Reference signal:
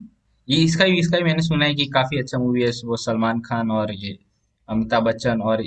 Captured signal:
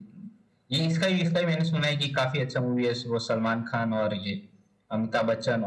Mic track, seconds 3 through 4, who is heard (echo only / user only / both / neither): echo only